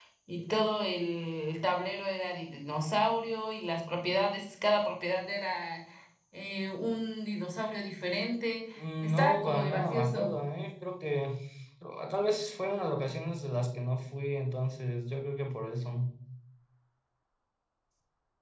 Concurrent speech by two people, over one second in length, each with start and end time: 9.0-10.3

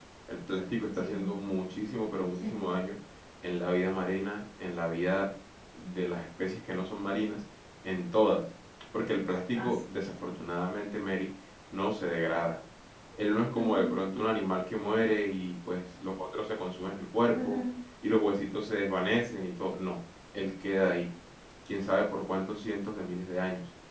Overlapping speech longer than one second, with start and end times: none

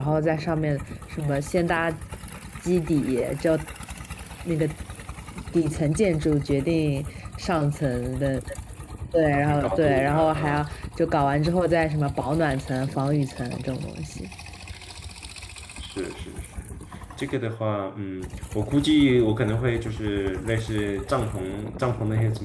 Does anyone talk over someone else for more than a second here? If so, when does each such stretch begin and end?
9.3-10.7

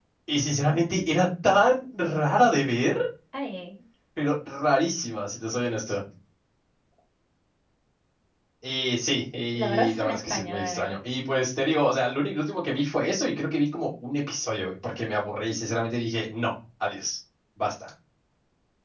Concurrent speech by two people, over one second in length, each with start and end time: 9.5-11.0

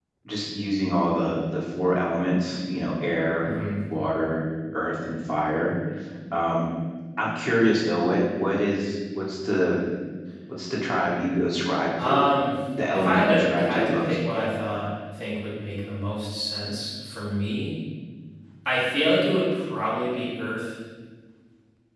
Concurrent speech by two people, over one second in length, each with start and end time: 12.9-14.2

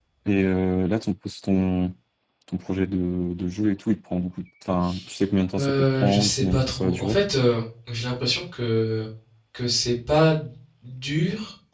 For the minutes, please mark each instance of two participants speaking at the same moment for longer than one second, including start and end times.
5.6-7.2

